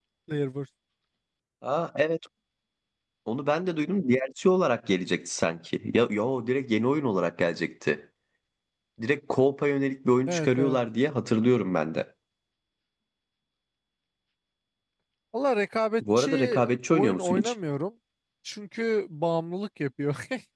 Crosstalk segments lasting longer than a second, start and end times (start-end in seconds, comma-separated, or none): 16.2-17.5